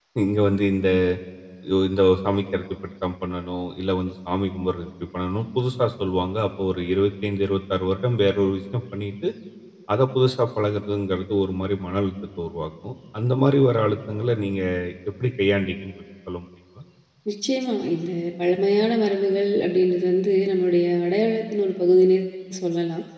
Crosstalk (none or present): none